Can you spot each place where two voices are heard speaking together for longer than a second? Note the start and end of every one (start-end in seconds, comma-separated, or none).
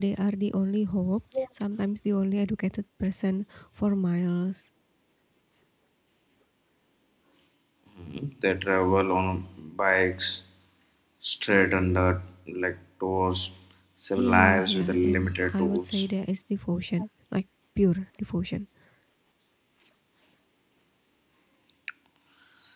14.2-16.1